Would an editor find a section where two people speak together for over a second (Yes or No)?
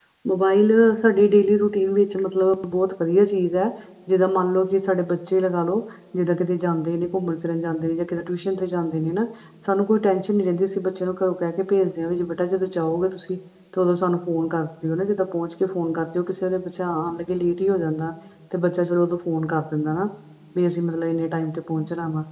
No